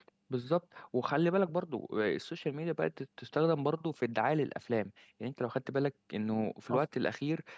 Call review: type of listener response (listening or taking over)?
listening